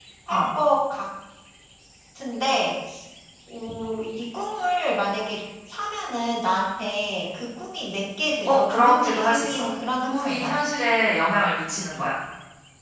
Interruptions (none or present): present